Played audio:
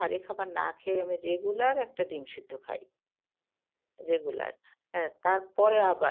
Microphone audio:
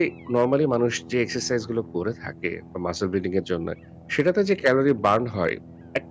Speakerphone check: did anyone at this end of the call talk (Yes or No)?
Yes